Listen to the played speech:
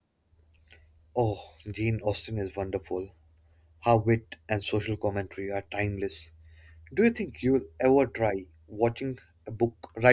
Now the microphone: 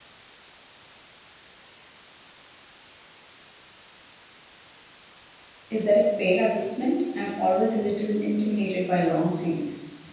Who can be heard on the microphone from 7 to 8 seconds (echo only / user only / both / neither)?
user only